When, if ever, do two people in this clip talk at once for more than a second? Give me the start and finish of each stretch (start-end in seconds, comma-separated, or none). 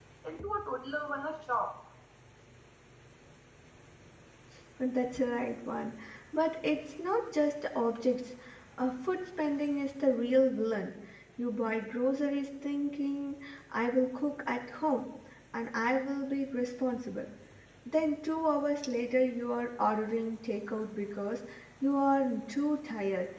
none